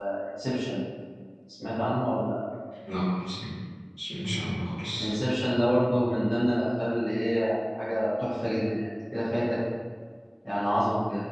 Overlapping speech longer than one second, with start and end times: none

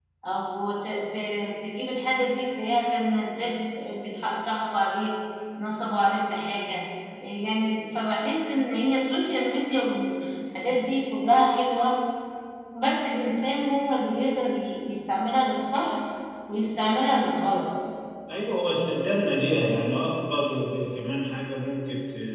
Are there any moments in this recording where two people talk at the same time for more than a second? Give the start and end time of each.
none

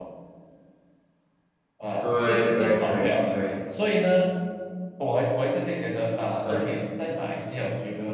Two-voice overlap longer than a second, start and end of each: 2.0-3.4

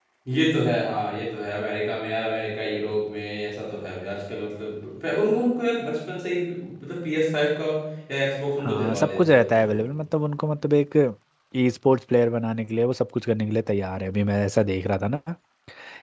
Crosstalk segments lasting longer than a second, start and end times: 8.6-9.8

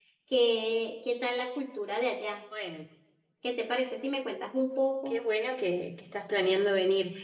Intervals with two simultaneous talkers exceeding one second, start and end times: none

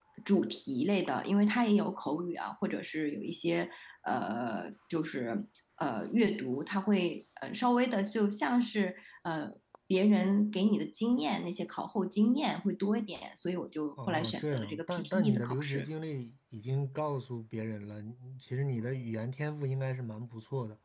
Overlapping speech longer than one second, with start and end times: 14.1-15.9

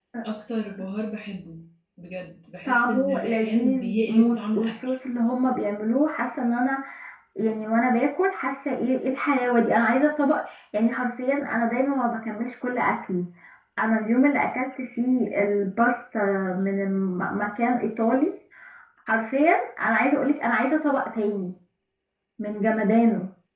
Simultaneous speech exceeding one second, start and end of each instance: 2.6-4.7

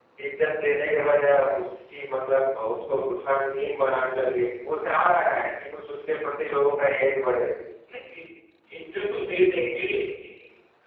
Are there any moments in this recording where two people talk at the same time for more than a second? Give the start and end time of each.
none

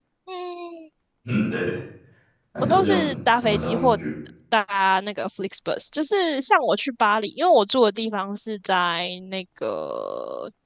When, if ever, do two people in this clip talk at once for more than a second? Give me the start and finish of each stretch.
2.6-4.0

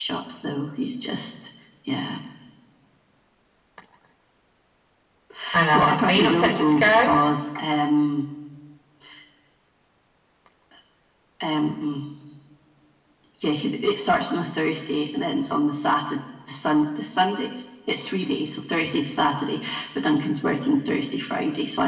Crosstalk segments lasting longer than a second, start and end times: 5.7-7.1

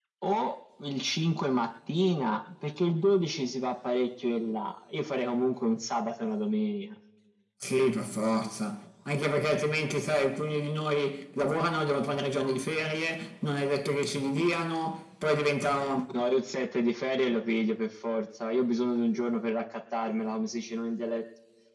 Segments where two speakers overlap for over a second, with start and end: none

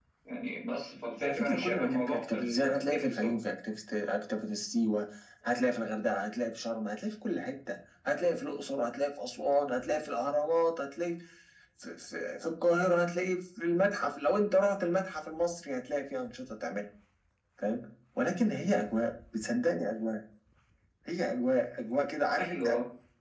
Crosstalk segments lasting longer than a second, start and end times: 1.2-3.3

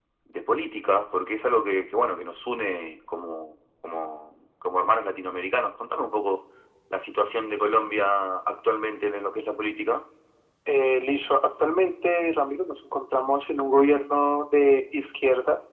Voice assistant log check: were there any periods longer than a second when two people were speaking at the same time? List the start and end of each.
none

